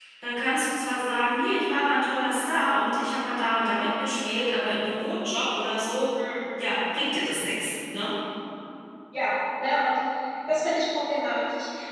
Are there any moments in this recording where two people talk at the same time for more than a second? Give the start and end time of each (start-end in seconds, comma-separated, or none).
none